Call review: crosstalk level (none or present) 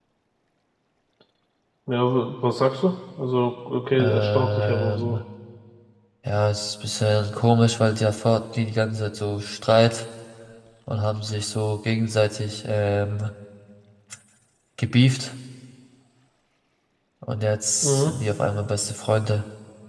present